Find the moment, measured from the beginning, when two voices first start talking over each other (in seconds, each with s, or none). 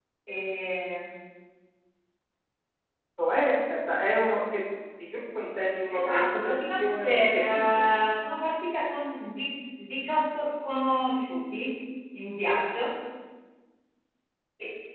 5.9 s